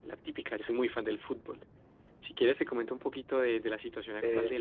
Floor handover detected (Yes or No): Yes